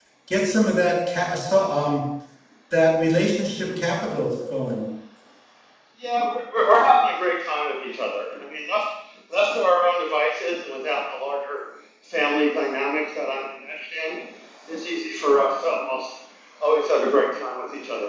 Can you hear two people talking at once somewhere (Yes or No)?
No